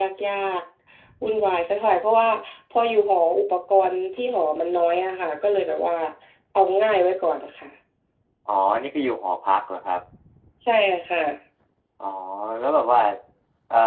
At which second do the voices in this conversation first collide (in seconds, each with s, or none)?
none